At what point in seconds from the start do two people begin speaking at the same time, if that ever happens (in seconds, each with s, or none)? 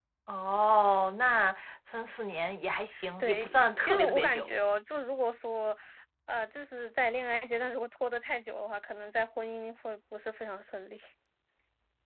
3.2 s